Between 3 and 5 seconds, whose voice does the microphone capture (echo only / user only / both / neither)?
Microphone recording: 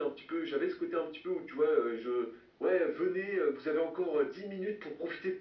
echo only